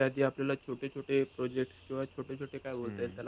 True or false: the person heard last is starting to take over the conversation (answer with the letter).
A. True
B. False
B